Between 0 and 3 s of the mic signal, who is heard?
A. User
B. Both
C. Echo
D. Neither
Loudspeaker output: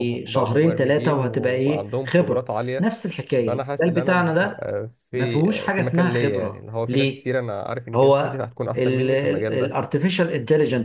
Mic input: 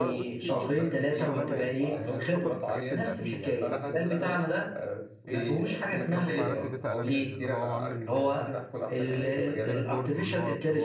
B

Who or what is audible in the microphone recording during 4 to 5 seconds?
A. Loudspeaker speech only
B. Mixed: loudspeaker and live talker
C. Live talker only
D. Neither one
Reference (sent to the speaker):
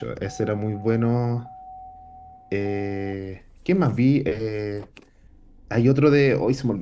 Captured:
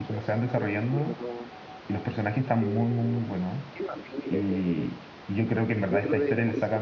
B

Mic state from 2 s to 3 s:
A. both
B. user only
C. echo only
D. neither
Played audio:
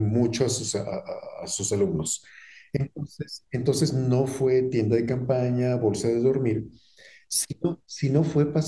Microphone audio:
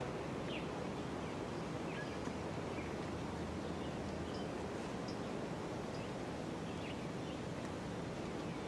D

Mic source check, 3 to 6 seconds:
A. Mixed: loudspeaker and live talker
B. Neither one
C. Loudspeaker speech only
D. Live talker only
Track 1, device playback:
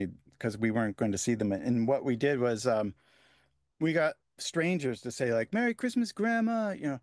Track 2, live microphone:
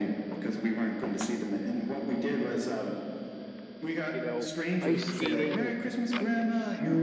A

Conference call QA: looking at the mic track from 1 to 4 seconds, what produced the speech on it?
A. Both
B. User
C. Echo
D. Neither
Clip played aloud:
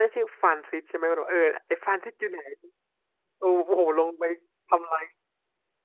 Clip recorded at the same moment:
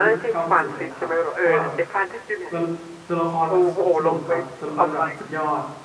A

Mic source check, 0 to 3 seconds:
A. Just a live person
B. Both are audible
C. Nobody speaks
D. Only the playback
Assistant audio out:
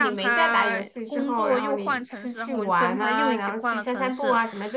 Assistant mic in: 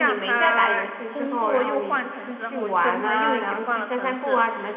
D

